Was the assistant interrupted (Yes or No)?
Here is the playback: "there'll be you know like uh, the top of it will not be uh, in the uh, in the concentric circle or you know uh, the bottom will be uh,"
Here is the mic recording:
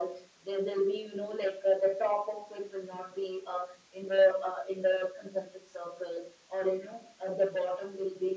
No